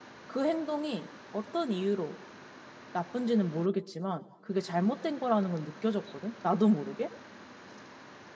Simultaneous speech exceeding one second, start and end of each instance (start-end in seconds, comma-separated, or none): none